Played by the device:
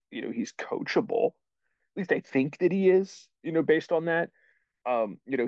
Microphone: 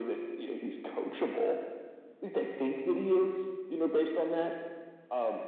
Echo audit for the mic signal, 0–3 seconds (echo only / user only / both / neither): echo only